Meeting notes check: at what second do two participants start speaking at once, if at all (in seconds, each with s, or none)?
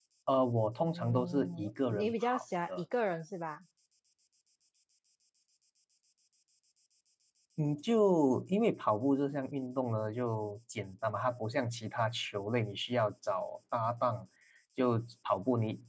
0.8 s